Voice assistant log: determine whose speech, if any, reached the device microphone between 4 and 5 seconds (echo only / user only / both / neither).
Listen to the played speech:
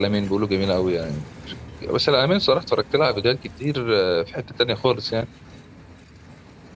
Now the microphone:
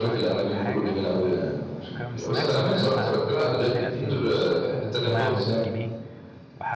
both